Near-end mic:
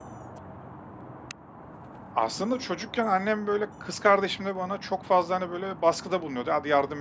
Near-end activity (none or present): present